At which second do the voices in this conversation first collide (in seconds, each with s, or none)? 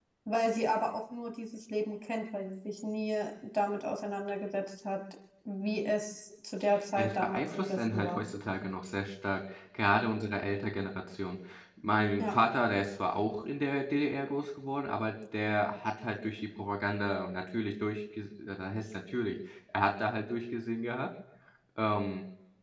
6.7 s